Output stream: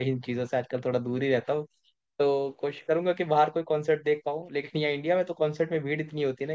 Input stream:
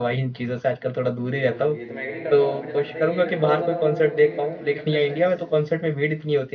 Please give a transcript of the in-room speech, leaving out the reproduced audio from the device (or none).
बिल्कुल ये तो मैं एग्री करता हूँ और मुझे लगता है ये ना बहुत ज्यादा वो भी हो गया कि मतलब मुझे लगता है सेंस